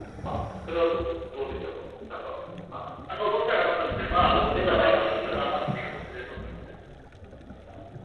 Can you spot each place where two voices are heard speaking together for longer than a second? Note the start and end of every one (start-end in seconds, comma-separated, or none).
4.1-5.8